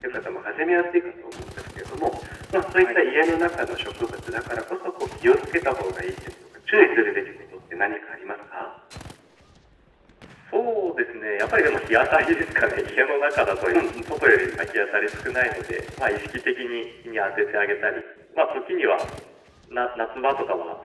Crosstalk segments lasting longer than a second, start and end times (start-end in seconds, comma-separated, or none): none